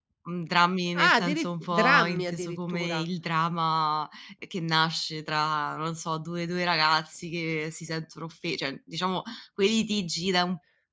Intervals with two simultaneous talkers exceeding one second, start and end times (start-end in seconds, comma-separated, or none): 0.9-3.1